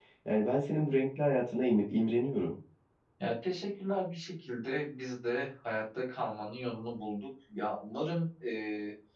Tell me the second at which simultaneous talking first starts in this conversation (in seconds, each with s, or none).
none